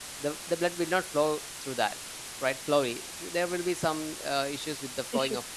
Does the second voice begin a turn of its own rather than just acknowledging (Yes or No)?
No